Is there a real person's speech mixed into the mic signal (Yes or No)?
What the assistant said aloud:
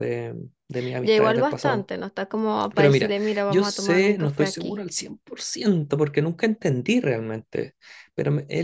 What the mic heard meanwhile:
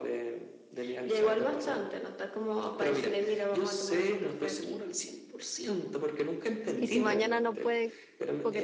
Yes